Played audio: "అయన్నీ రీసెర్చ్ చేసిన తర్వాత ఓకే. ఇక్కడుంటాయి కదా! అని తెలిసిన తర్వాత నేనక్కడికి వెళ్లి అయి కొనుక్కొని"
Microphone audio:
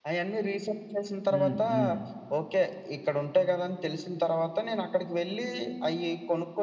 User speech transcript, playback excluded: హ్మ్. హ్మ్.

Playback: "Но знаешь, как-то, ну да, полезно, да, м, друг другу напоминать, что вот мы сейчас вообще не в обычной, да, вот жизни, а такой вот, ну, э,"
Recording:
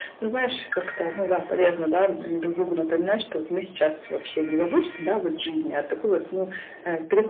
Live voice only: none

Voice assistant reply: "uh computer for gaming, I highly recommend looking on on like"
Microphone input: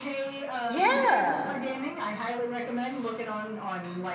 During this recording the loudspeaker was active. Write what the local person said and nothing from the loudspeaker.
Yeah.

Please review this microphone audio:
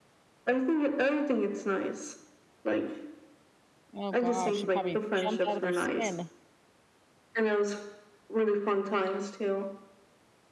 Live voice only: Oh gosh. They probably jumped out of their skin.

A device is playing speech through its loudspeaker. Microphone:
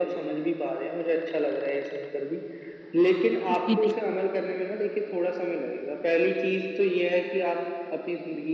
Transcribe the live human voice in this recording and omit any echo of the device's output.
जी, जी, बिल्कुल।

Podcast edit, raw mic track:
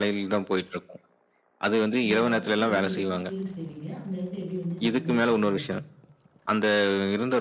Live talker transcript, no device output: அந்த பகுதிய வந்து எப்படி தேர்வு செய்வீங்க? அந்த இடத்த எப்படி வந்து நீங்க வந்து வச்சுப்பீங்க?

